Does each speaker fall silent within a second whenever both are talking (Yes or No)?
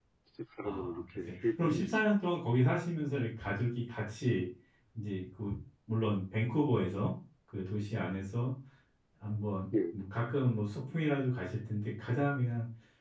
No